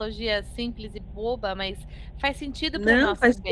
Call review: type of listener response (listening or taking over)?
taking over